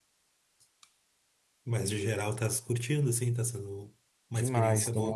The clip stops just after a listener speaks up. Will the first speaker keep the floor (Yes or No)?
No